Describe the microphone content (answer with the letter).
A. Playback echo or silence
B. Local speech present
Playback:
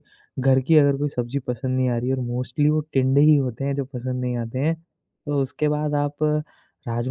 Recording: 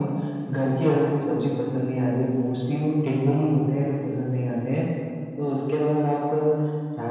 A